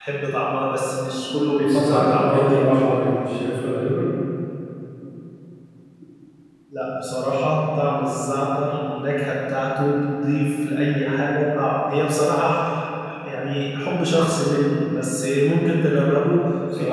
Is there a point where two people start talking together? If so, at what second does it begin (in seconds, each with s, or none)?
1.6 s